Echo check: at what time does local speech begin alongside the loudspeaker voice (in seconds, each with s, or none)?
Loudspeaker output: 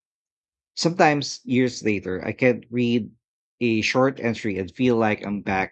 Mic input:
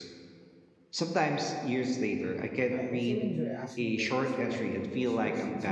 2.7 s